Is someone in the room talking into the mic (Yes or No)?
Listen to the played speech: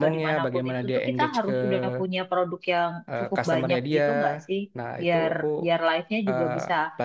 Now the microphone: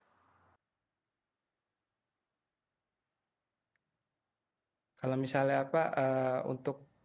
Yes